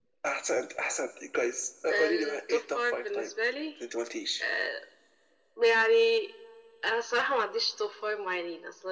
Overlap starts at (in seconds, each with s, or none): 1.9 s